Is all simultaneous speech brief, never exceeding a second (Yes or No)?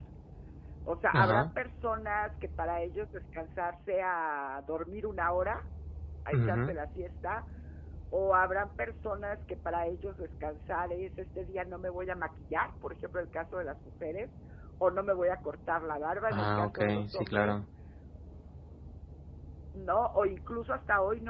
No